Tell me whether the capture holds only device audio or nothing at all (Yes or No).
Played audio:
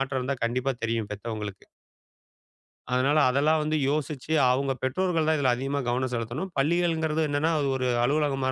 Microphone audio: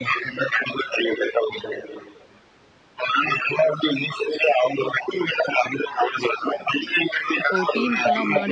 No